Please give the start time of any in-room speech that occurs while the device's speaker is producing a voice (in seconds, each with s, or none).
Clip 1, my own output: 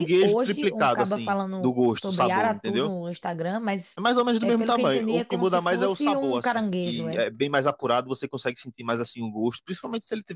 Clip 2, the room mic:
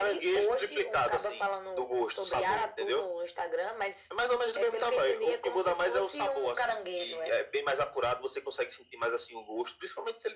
none